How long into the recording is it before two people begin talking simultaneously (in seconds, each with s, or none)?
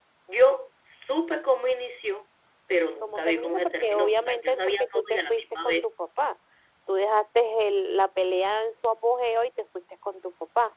3.0 s